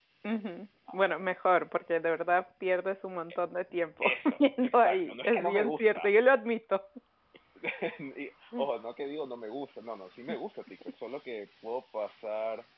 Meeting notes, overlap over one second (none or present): present